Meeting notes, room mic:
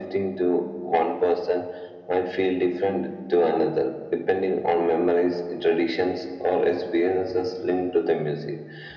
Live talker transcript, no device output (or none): none